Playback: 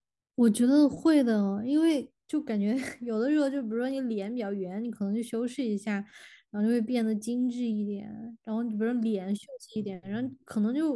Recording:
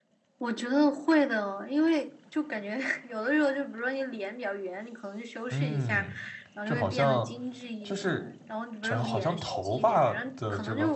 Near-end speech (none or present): present